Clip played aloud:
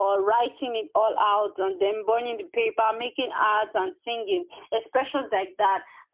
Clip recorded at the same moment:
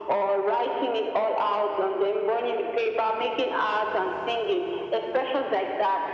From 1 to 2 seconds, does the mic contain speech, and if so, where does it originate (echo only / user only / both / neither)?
echo only